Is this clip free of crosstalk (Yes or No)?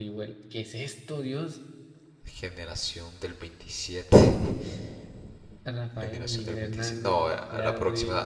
No